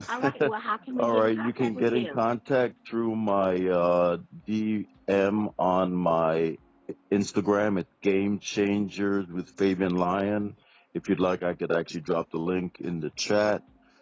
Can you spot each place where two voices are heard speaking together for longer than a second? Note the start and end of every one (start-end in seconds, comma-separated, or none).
1.0-2.2